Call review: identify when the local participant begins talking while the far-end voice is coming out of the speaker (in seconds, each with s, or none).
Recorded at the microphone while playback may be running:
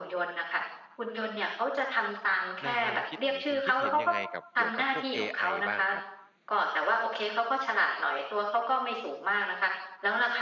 2.6 s